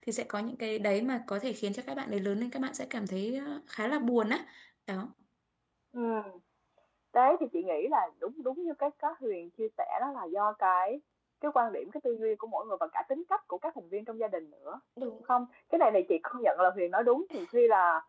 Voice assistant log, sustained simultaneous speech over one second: none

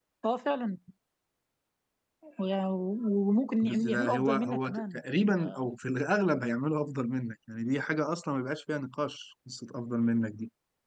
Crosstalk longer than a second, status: present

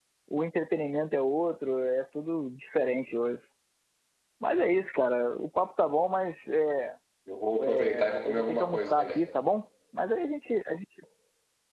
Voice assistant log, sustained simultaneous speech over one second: present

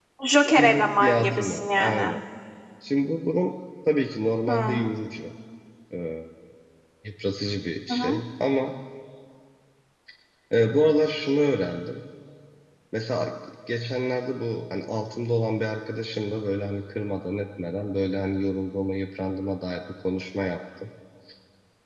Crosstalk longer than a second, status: present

